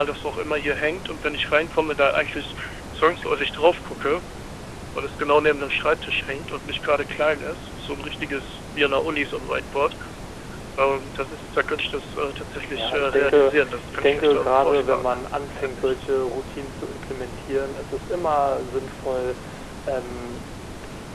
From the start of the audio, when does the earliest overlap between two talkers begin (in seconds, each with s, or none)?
12.7 s